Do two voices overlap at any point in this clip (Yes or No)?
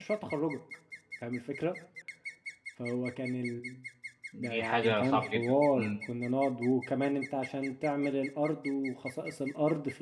Yes